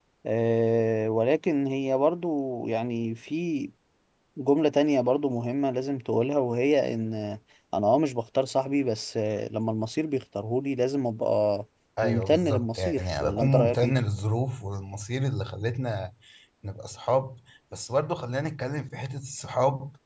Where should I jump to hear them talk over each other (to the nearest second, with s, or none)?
12 s